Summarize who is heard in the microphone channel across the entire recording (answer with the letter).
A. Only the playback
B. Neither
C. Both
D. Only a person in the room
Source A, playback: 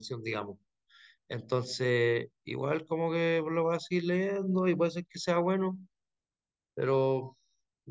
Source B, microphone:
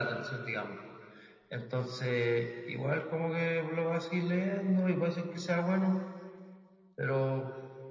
A